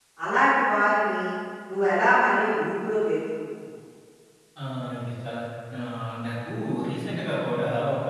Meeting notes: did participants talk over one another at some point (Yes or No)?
No